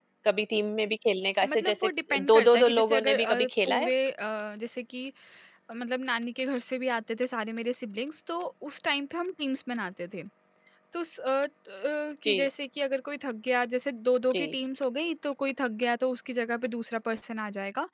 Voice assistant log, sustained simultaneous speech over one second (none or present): present